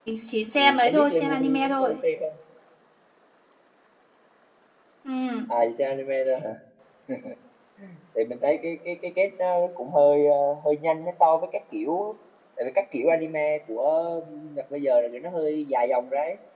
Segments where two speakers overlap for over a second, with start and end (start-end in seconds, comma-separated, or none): 0.6-1.9